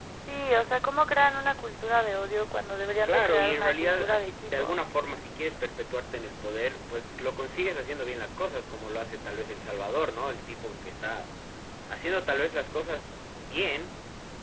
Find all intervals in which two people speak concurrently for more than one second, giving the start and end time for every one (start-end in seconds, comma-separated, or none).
3.0-4.8